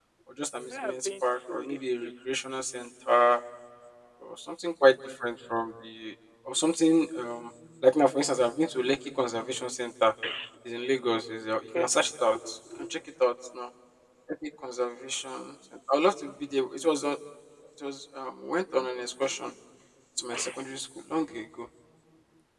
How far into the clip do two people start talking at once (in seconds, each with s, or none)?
0.7 s